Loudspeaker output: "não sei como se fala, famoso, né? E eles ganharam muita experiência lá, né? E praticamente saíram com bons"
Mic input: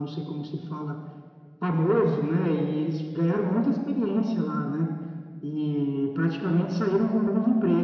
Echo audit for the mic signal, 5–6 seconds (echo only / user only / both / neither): echo only